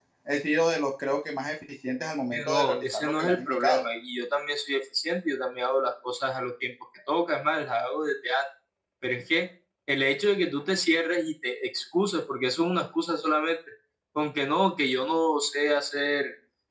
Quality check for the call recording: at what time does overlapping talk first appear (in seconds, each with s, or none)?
2.3 s